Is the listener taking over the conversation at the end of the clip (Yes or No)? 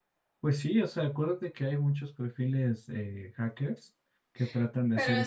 Yes